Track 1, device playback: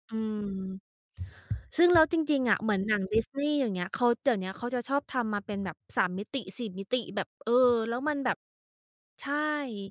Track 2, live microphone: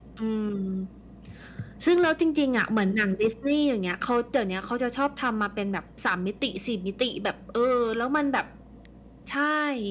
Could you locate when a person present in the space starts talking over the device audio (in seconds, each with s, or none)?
none